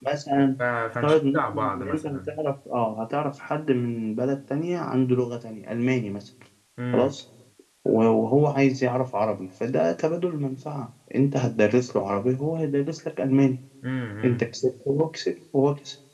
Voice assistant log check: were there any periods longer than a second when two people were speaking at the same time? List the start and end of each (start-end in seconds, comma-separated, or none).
1.0-2.4